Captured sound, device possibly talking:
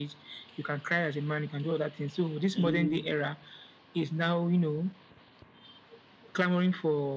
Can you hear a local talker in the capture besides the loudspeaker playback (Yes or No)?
Yes